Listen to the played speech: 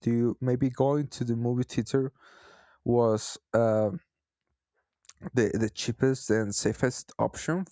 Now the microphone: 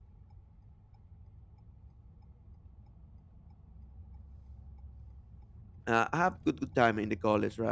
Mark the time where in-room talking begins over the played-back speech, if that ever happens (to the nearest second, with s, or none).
6 s